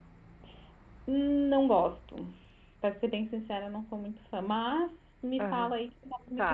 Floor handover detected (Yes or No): Yes